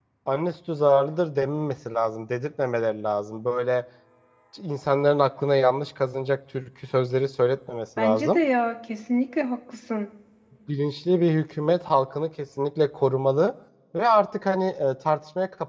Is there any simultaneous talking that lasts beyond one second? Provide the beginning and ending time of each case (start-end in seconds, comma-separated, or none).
none